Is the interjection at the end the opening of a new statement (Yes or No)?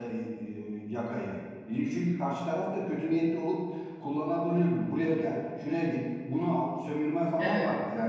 Yes